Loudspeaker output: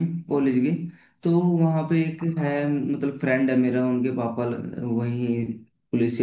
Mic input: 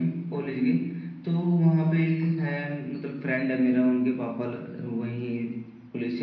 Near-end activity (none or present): none